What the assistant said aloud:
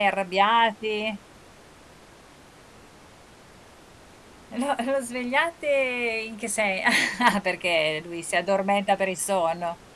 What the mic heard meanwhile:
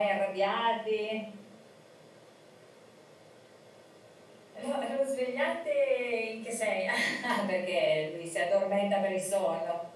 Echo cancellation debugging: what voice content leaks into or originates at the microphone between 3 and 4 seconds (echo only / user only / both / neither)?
neither